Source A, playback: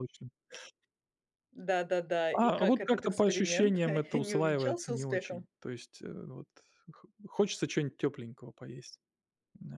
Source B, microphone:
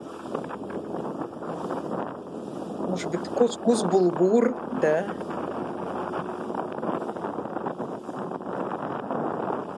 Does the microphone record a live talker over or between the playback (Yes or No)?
Yes